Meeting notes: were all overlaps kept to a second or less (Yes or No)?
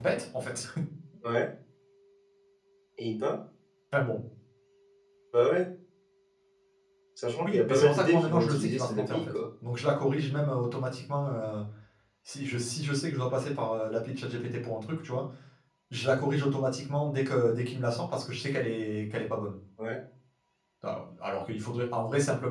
No